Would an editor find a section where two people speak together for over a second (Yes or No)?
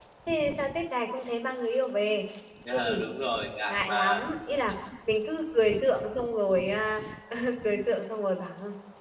No